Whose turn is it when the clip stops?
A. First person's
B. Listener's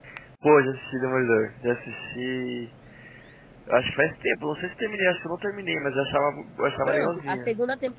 B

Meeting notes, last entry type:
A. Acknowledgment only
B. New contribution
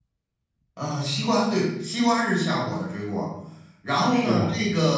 A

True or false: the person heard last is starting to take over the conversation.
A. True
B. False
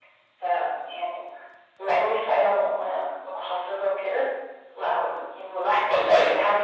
B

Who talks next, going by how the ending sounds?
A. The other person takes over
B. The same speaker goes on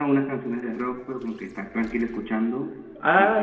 A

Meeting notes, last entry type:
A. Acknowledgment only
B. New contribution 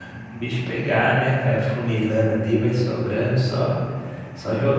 B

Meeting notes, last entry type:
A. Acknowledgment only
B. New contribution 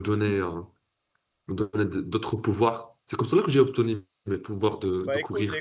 B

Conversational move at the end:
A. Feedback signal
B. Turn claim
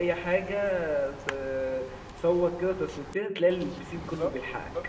B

